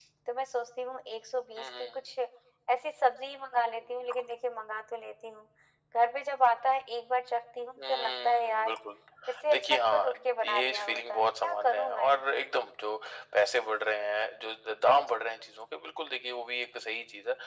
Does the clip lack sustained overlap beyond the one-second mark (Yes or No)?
No